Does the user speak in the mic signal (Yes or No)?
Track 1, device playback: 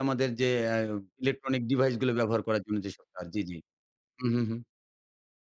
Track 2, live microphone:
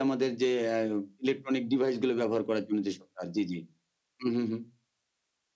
No